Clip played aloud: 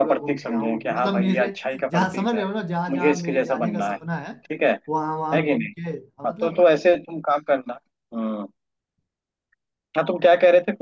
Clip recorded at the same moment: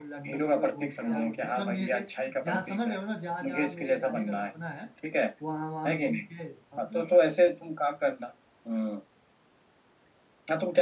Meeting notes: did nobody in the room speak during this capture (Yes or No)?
No